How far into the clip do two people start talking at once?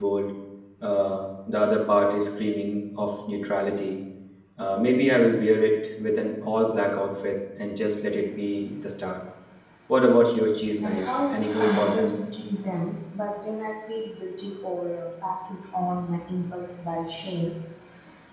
10.8 s

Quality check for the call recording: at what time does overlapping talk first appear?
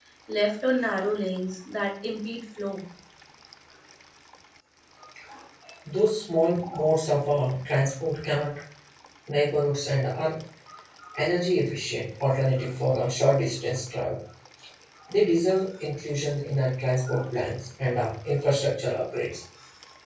none

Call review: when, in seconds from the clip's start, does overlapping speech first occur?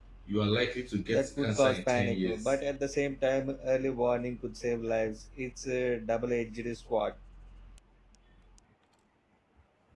1.1 s

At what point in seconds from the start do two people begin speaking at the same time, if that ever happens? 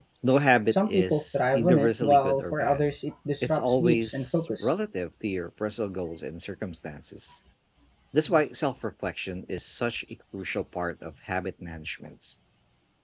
0.7 s

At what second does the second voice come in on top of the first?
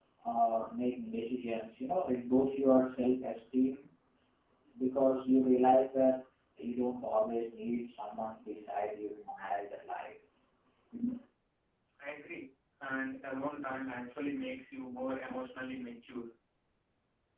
none

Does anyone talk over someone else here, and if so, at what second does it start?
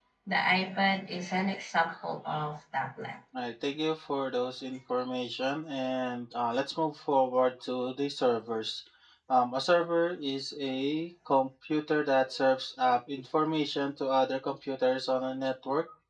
none

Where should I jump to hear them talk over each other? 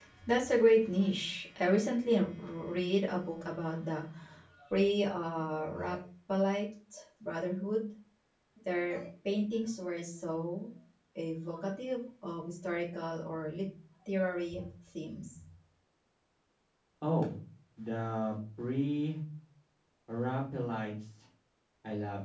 none

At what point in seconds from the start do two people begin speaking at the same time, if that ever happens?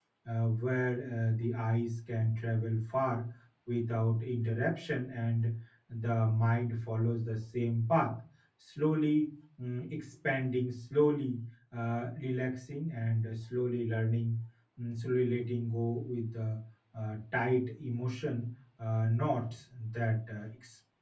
none

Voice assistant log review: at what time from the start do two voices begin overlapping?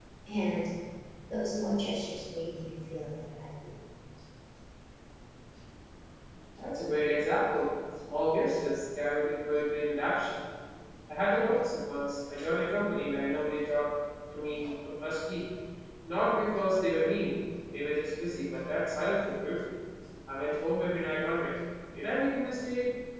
none

